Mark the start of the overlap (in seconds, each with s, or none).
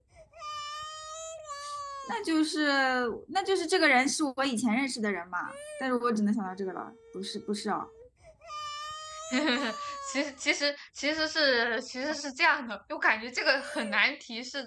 none